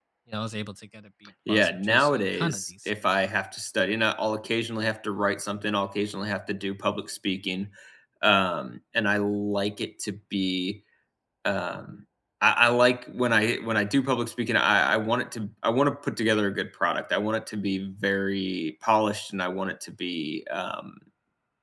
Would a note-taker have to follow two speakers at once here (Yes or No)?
Yes